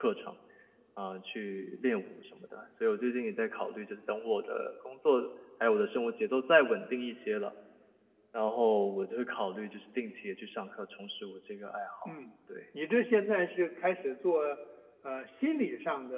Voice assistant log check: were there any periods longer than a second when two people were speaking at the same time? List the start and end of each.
none

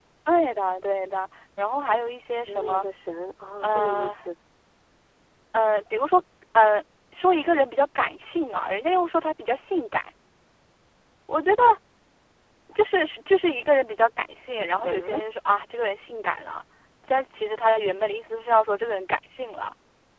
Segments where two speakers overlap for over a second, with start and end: none

